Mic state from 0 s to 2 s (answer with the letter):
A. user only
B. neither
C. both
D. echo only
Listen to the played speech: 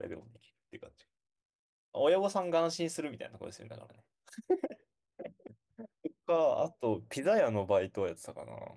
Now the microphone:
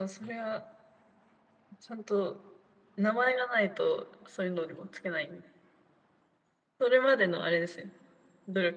A